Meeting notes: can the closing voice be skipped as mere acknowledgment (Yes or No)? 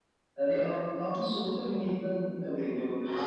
No